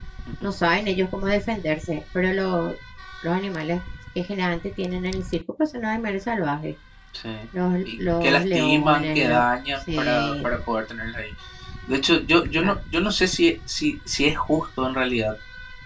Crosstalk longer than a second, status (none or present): present